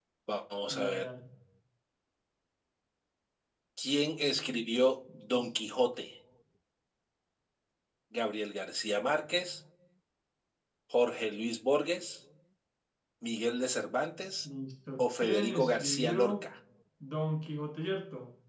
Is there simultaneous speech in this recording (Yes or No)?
Yes